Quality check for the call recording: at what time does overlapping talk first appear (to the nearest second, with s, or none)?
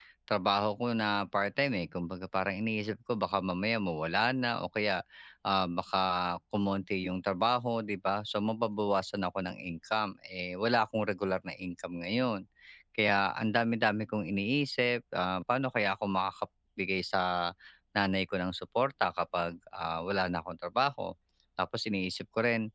none